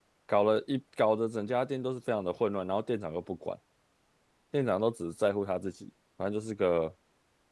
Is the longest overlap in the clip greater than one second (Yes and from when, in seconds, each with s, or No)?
No